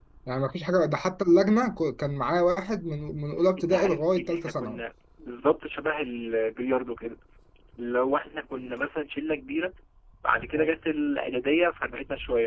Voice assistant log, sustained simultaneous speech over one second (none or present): present